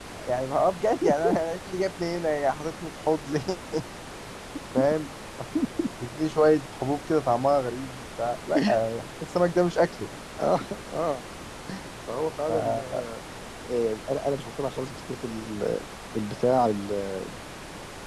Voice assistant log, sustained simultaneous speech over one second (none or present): none